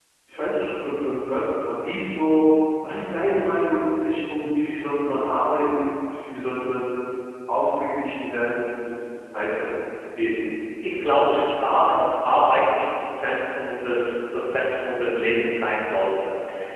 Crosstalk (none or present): none